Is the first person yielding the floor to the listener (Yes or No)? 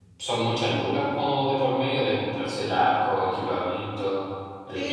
Yes